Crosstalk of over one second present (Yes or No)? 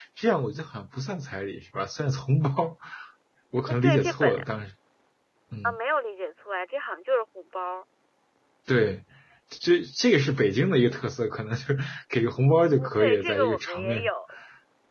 Yes